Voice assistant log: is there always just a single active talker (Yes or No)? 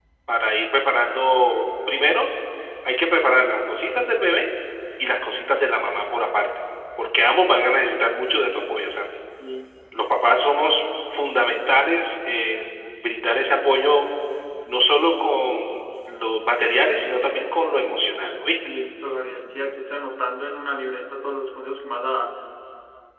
Yes